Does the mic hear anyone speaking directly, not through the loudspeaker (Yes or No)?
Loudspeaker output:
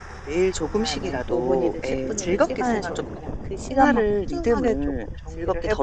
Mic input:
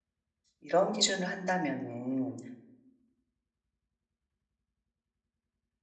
Yes